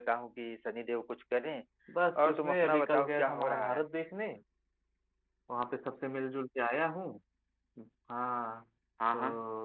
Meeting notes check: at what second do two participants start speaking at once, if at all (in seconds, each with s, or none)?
2.2 s